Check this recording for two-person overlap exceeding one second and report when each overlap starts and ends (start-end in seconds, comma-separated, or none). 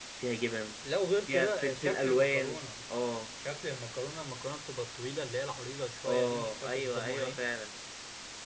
1.3-2.6, 6.0-7.4